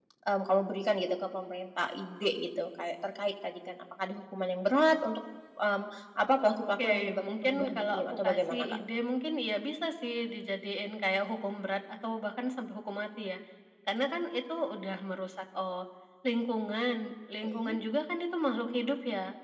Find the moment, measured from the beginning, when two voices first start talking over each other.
7 s

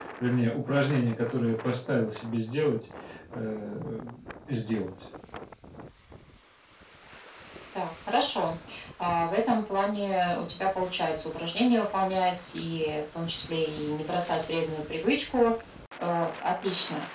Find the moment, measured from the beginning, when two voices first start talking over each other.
none

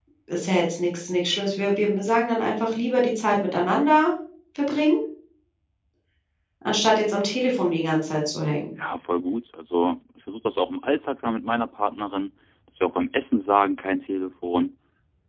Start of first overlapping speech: none

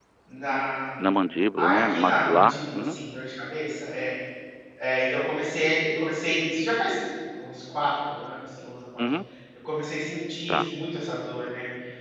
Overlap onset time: 2 s

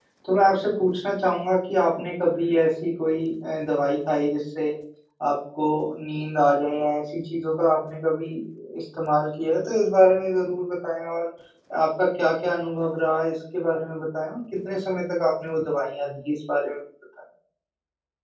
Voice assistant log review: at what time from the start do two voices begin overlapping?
none

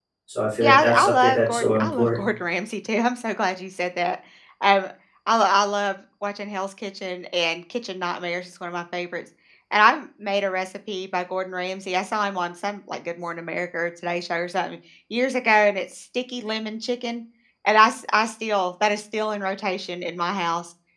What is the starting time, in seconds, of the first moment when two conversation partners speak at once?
1 s

